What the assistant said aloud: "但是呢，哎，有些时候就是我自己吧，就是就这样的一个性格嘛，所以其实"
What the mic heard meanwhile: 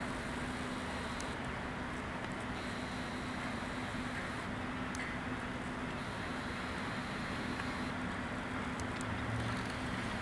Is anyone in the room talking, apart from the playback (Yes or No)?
No